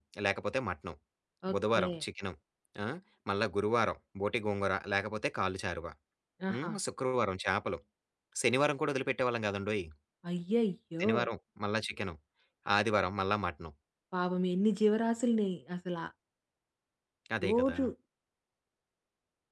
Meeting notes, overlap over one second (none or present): none